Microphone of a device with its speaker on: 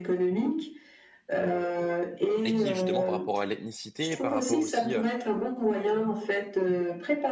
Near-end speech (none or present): present